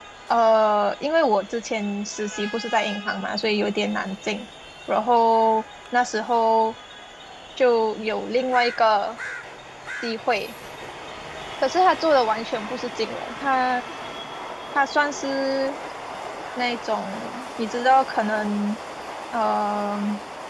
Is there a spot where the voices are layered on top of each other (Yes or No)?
No